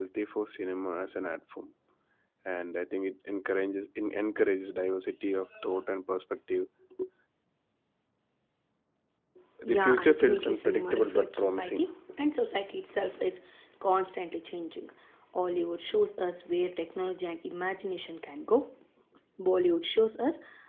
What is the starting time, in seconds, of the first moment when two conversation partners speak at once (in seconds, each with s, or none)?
9.7 s